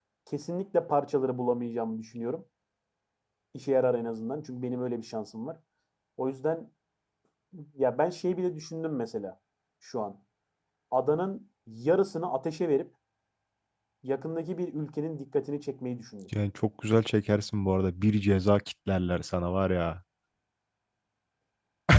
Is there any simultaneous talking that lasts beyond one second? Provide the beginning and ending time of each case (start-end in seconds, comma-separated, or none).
none